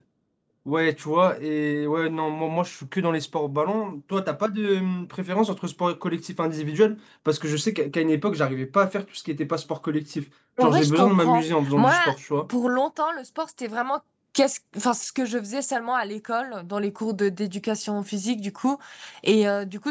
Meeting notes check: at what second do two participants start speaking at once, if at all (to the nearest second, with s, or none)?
11 s